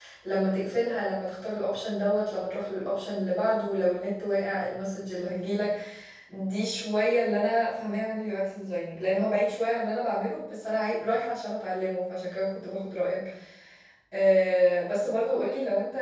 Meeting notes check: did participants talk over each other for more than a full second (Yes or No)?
No